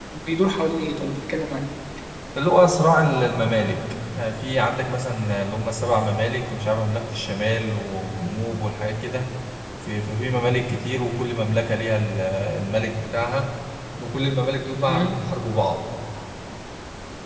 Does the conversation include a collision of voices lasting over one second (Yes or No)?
No